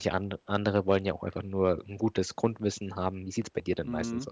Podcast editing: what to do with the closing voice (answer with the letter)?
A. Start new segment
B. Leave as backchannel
A